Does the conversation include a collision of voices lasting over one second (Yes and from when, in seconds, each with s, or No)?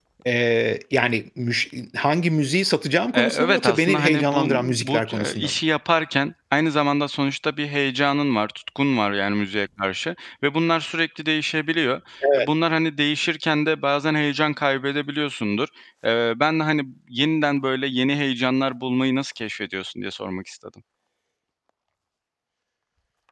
Yes, from 3.1 s